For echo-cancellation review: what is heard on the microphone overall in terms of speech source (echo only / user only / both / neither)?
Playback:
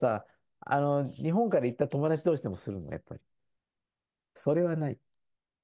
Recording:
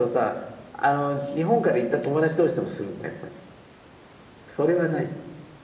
echo only